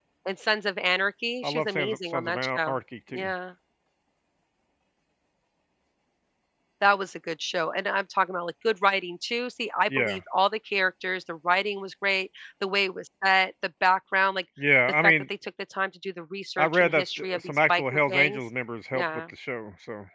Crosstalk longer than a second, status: present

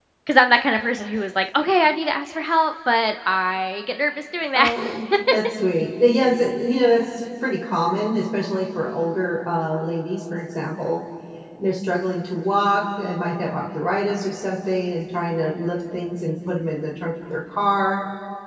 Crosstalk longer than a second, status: none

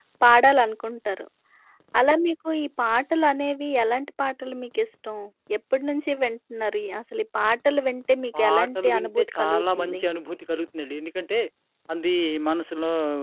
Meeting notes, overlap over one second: present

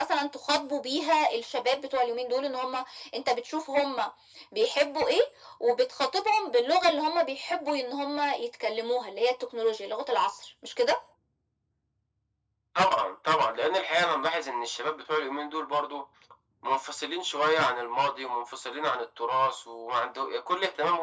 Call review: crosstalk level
none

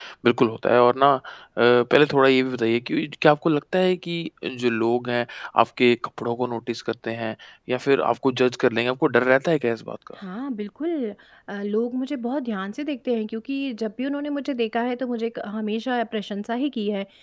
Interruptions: none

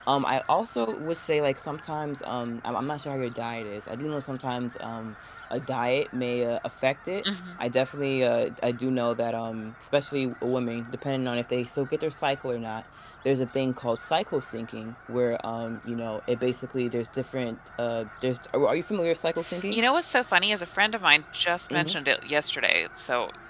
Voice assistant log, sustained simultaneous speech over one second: none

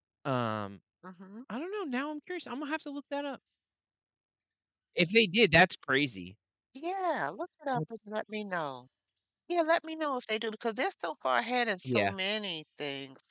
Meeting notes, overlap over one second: none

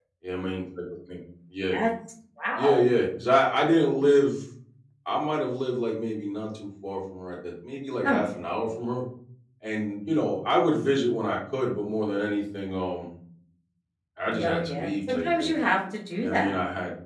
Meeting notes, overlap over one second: present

